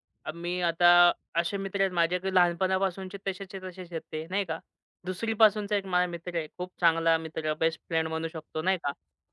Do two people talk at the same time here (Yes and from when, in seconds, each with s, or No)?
No